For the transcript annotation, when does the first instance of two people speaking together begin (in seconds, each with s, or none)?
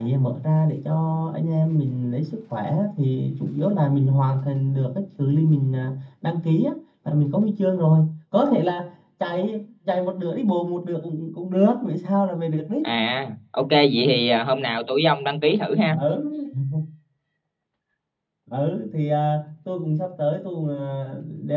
none